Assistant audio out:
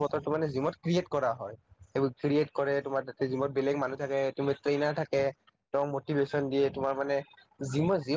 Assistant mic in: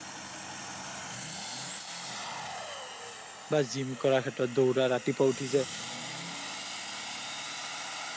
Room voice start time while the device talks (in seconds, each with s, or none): 3.5 s